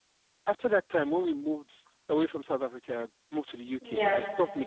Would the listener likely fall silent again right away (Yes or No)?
Yes